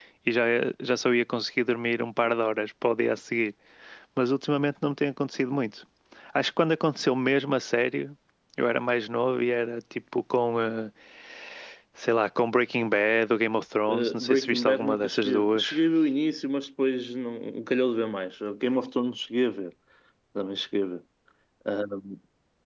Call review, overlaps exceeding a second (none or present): present